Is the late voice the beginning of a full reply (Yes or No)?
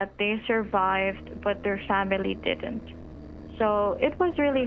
No